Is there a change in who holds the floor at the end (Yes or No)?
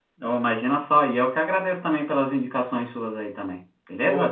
Yes